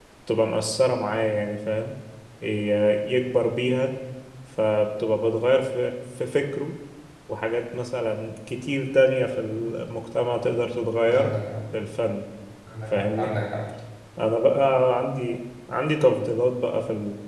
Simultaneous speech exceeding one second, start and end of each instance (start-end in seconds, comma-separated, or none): none